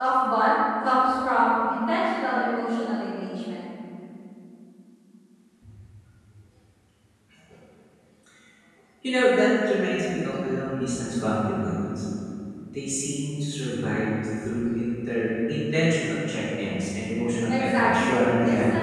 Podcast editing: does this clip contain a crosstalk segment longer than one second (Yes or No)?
Yes